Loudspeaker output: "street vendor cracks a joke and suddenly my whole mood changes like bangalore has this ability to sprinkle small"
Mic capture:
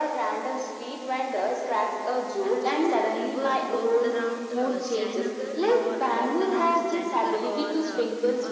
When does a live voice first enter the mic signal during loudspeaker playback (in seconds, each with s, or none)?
2.5 s